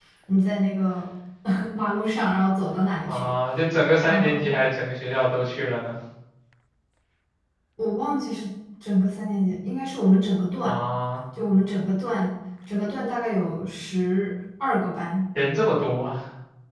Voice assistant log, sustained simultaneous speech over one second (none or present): none